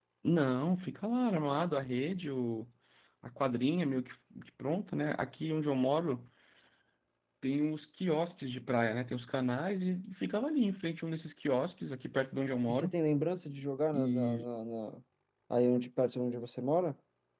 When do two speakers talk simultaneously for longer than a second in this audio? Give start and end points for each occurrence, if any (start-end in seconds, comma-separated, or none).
none